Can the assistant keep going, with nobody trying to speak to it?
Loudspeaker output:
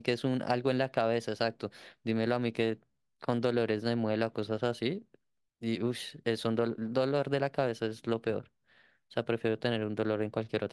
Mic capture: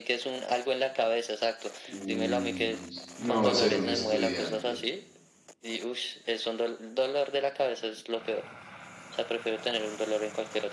No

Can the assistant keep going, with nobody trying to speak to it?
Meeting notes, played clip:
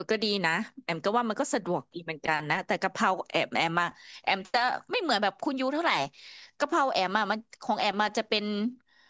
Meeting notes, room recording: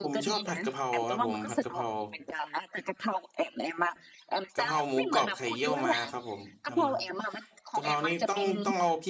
No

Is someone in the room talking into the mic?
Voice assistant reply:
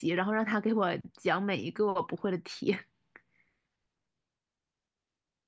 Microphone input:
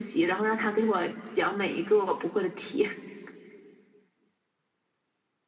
No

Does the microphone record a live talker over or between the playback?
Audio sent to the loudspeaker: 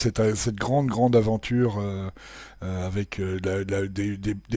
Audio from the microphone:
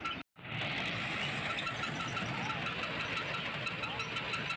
No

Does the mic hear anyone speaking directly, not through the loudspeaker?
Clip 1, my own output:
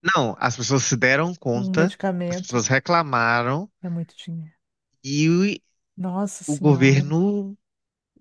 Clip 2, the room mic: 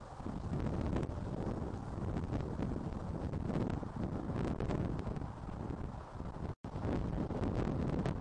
No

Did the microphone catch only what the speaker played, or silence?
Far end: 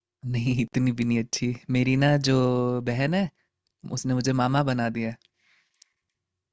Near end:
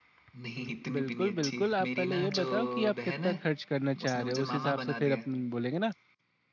No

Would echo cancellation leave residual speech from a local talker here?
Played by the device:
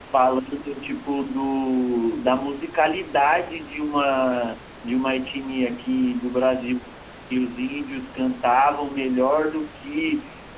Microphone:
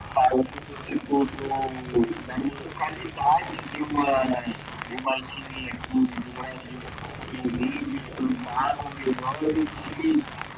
No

